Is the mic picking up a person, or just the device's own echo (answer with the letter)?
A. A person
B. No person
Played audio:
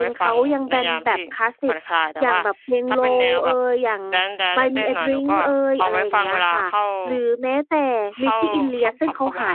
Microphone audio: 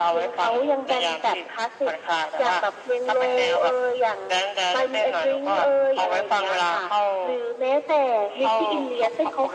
B